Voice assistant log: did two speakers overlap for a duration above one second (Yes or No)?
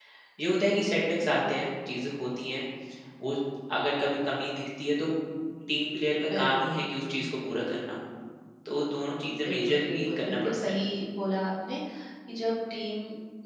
Yes